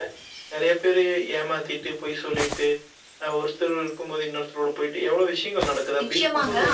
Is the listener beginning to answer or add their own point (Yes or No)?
Yes